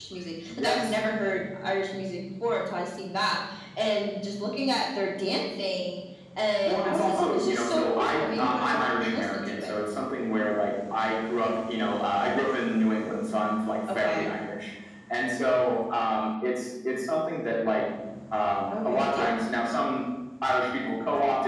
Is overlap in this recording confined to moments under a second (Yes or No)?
No